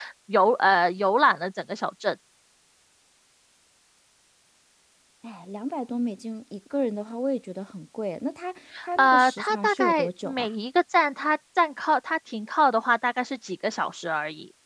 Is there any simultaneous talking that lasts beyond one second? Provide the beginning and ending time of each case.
9.0-10.5

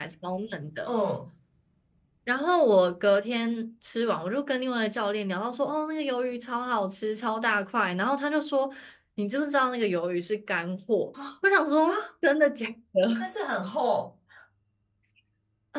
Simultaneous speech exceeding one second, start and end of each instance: none

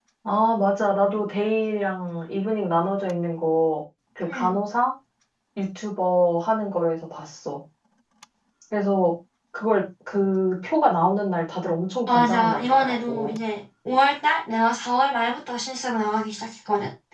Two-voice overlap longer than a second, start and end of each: 12.1-13.4

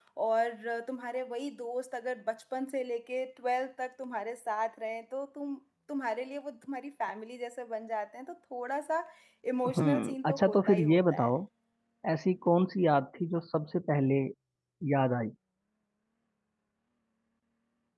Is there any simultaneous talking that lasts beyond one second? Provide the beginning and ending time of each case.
9.8-11.3

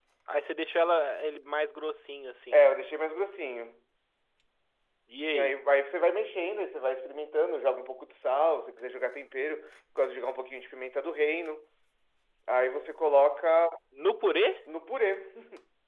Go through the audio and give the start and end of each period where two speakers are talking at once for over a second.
none

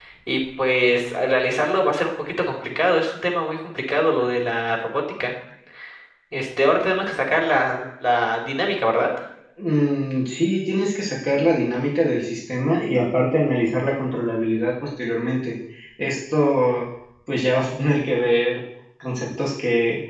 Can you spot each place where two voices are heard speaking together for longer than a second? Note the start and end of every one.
none

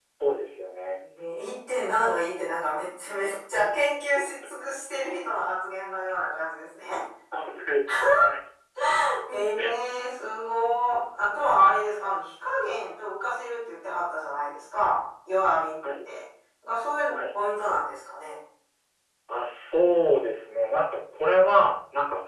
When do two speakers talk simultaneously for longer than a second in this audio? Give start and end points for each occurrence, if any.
none

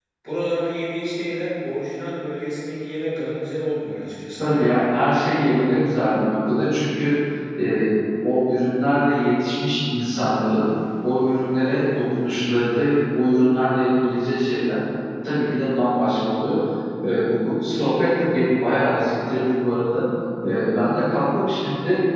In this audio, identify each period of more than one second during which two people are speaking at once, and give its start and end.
none

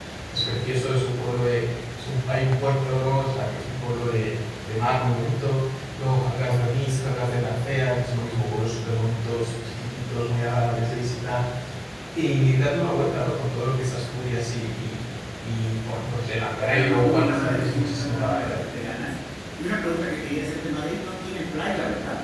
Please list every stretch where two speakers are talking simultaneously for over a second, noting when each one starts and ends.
16.6-18.7

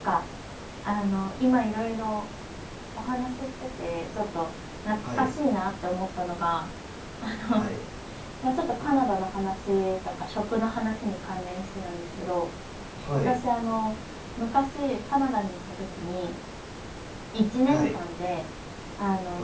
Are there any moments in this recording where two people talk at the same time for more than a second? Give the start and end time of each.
none

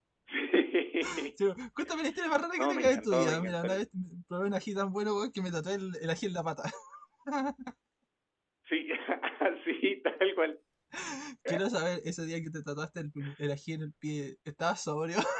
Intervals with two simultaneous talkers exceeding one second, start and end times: 2.6-3.8

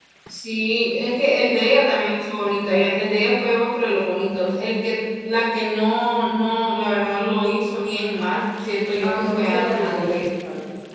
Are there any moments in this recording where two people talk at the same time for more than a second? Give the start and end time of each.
9.0-10.3

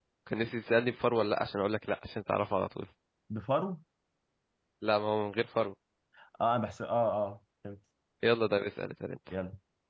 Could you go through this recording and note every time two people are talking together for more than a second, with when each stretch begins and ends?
none

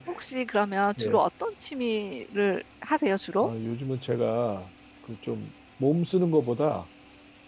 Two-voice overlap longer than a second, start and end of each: none

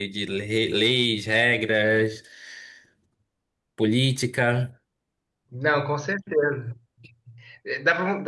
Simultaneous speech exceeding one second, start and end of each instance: none

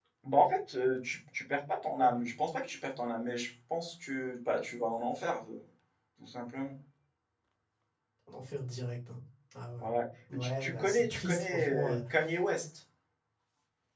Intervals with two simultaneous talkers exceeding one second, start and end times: 10.3-12.0

